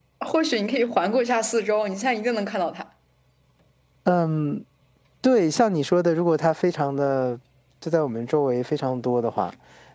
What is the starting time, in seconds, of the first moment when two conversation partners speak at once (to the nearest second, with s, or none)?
none